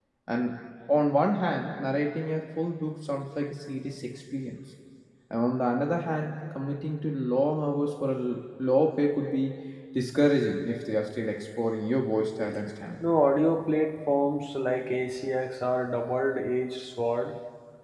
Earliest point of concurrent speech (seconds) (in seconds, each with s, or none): none